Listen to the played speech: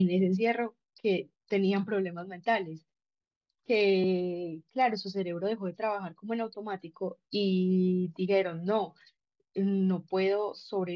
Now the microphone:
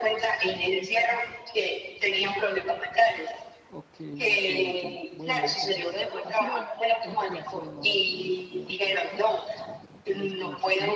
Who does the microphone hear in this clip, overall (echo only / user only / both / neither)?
both